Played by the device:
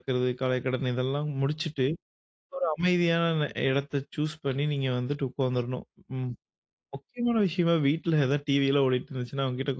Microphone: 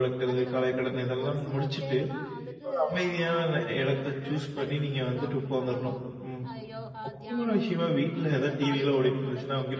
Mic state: both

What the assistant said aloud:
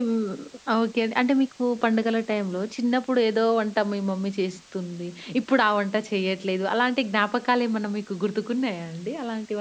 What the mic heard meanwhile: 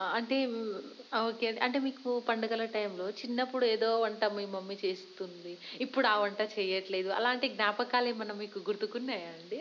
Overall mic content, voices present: echo only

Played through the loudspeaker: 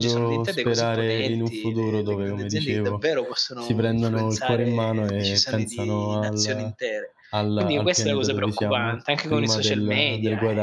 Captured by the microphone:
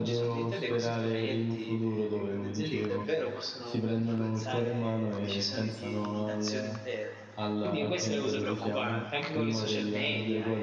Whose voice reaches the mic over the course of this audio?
echo only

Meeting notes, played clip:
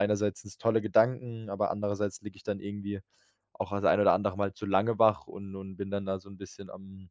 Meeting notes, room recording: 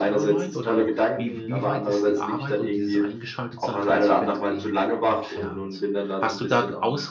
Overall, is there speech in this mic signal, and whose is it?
both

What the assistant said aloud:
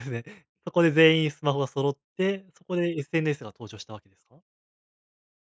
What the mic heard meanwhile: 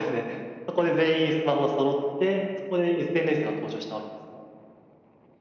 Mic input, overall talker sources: echo only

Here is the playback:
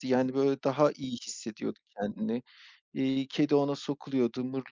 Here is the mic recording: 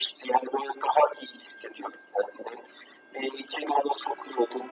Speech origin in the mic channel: echo only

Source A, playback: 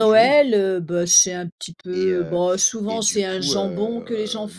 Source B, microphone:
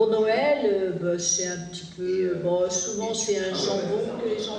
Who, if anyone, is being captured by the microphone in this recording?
both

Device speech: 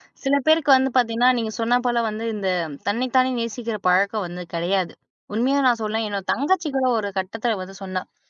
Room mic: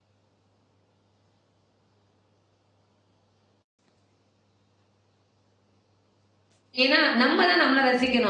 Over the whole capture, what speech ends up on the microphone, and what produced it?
user only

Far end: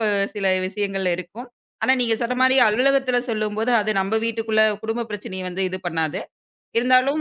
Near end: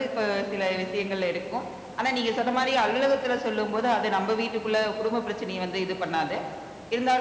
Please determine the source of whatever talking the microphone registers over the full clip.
echo only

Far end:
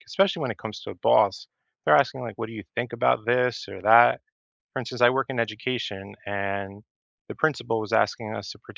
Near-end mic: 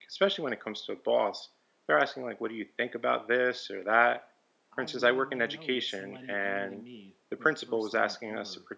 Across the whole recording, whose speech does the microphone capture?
both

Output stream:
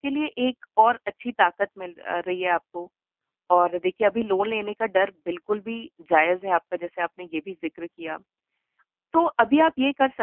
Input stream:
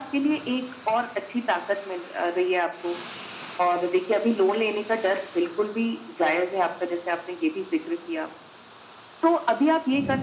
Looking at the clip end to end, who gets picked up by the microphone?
echo only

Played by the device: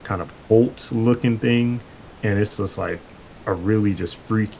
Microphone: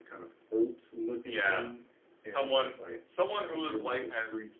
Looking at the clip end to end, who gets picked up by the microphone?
both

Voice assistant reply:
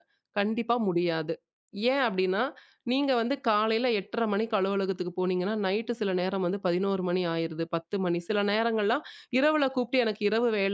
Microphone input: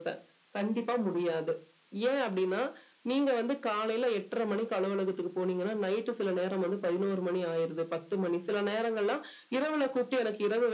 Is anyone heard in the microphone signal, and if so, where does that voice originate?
echo only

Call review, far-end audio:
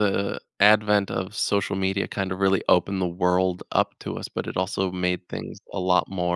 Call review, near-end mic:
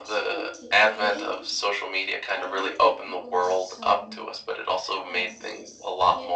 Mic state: both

